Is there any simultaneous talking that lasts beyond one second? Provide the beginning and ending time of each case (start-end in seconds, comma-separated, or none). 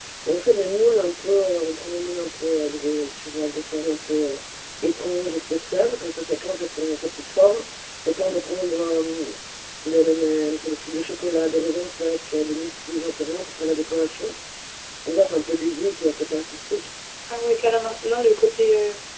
none